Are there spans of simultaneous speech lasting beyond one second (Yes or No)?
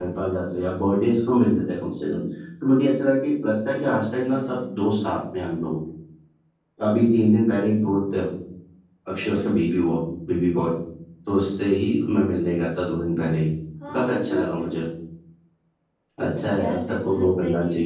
Yes